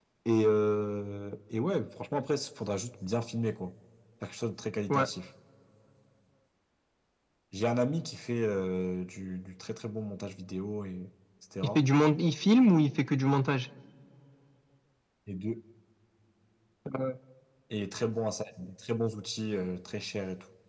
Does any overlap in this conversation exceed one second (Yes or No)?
No